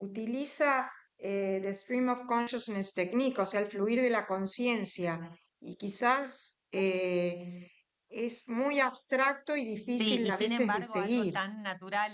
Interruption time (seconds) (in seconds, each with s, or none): 9.9 s